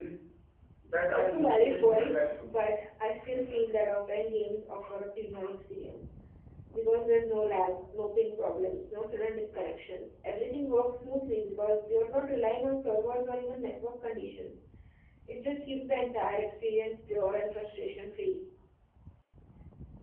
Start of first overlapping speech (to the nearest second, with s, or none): 1 s